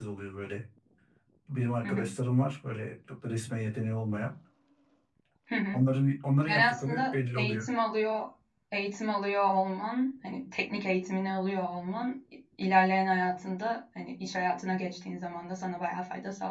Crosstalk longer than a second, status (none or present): present